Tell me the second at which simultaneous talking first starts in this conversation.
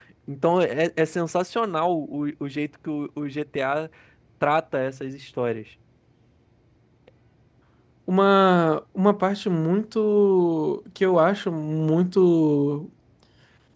none

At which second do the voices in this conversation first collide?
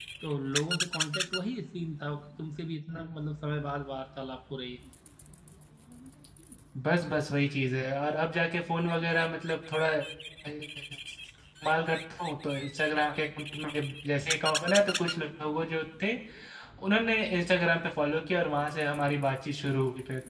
none

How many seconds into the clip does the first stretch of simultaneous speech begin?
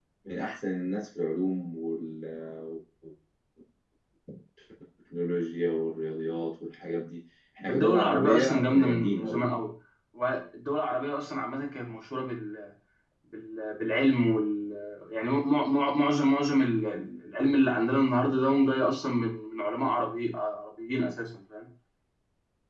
7.7 s

